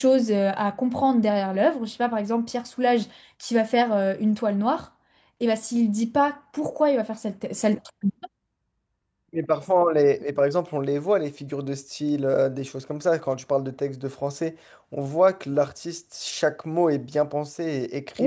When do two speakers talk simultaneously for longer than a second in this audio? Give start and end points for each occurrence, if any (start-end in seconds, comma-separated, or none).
none